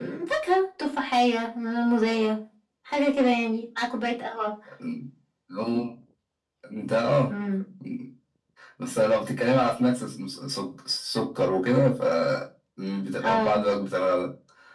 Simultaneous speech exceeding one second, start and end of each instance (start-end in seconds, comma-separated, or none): none